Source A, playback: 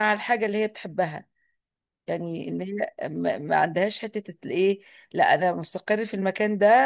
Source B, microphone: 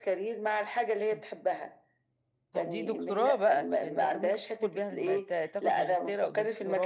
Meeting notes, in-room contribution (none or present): present